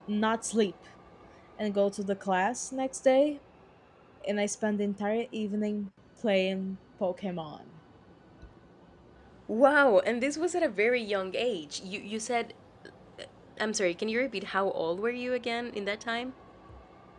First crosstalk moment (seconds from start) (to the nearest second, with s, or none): none